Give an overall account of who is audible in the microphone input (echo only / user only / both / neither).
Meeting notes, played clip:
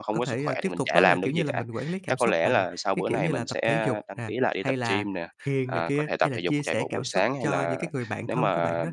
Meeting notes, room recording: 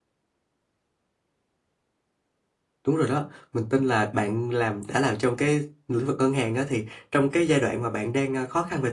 user only